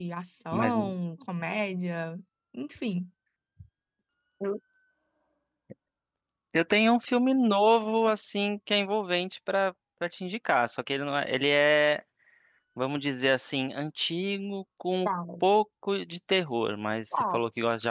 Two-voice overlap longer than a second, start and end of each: none

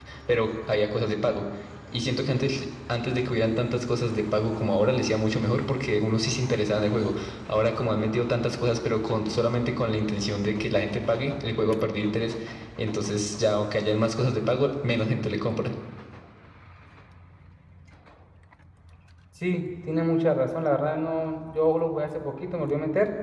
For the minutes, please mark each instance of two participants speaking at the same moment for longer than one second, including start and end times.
none

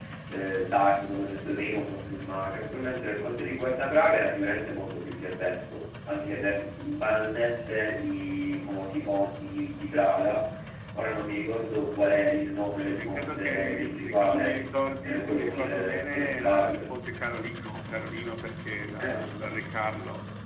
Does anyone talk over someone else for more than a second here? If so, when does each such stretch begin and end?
12.8-14.6, 15.0-16.9

